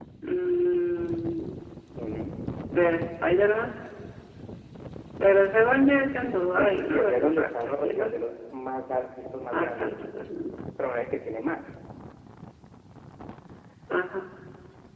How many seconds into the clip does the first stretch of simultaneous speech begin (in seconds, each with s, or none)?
6.6 s